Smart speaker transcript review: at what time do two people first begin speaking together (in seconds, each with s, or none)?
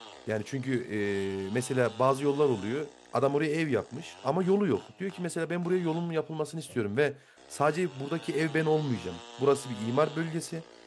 none